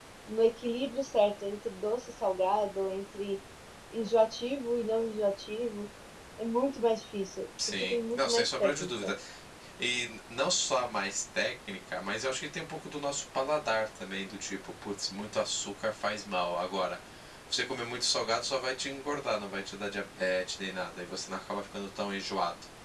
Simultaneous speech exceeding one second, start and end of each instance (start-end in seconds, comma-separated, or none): 7.8-9.1